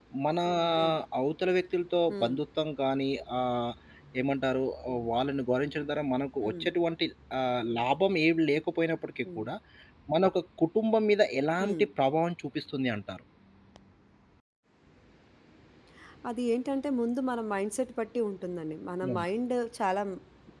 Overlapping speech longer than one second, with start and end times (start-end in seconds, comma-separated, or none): none